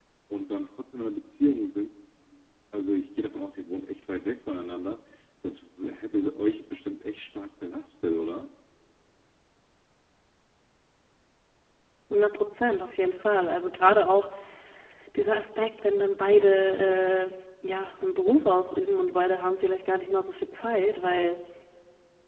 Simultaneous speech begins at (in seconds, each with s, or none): none